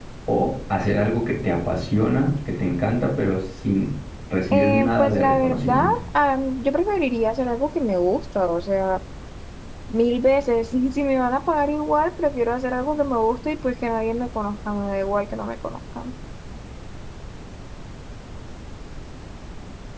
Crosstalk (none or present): present